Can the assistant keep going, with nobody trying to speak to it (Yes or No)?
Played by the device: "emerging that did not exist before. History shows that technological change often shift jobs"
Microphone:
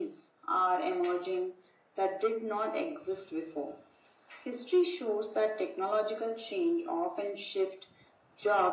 Yes